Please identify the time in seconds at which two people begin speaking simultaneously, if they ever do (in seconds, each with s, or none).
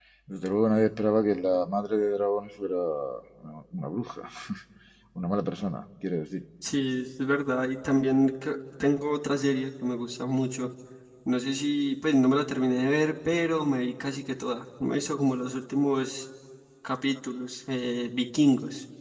none